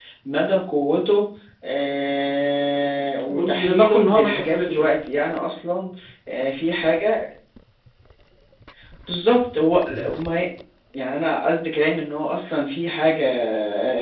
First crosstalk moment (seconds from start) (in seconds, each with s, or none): 3.3 s